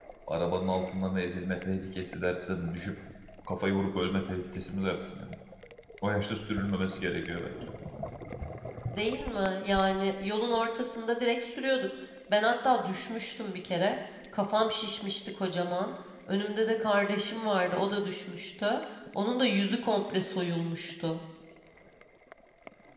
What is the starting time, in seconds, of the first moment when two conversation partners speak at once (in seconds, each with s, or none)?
none